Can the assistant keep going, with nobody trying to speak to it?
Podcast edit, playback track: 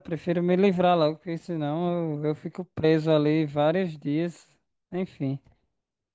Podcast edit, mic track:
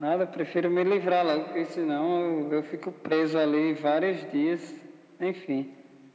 Yes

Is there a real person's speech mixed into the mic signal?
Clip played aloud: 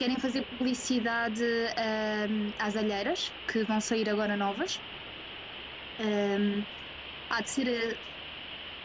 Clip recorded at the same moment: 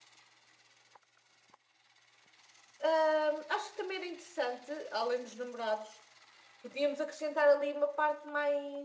Yes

